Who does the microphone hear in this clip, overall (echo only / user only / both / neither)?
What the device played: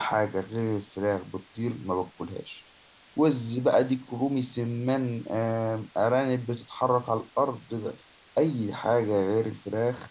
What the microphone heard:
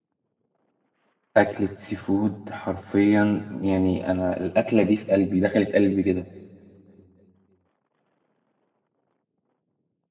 user only